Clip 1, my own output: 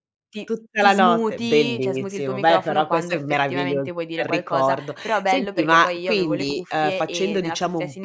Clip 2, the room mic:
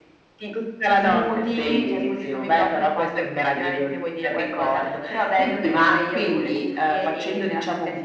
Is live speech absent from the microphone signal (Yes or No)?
Yes